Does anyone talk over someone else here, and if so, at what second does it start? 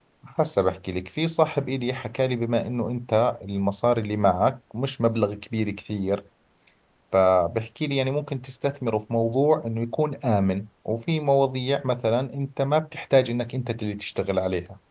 none

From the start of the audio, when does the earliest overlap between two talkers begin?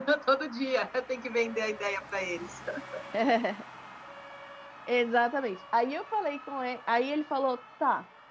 none

